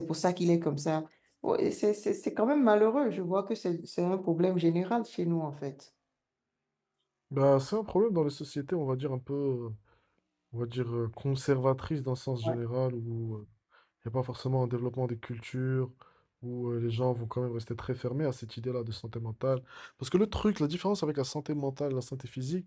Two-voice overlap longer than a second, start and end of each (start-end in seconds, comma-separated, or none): none